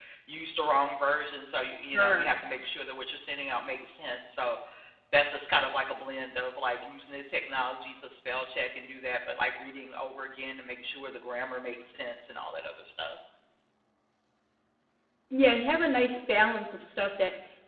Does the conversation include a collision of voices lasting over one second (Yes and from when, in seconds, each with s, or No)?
No